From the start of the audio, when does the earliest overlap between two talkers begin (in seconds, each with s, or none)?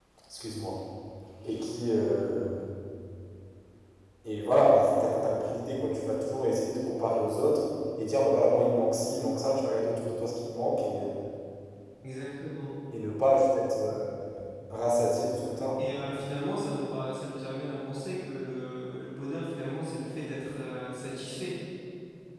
none